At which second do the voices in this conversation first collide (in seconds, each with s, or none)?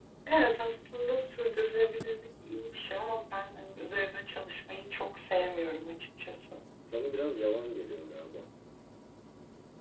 none